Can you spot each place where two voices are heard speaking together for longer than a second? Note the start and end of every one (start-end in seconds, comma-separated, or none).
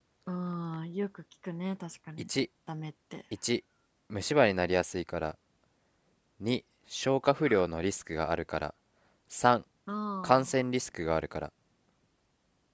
none